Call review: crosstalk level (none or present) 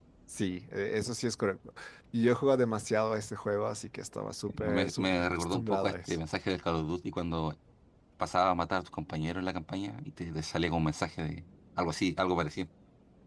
present